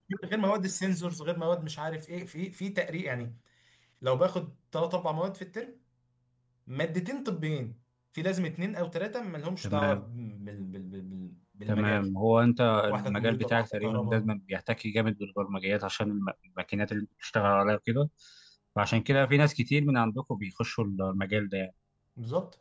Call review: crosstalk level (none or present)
present